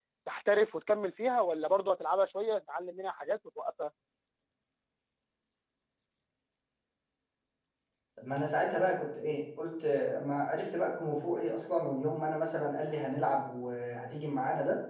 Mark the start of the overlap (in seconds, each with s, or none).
none